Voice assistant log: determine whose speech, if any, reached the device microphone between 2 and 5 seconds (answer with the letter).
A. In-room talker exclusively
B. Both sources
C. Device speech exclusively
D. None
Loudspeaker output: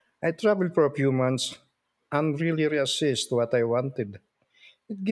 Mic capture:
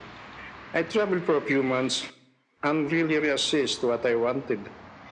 C